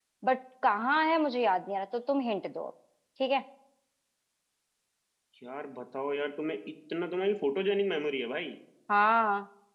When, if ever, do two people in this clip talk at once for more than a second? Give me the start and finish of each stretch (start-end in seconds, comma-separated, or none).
none